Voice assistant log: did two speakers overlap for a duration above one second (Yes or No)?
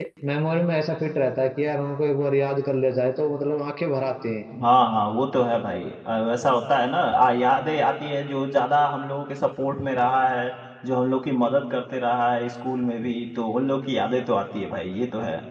No